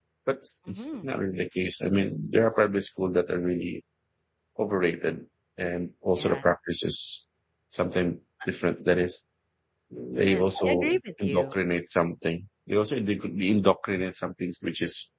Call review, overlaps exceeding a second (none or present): present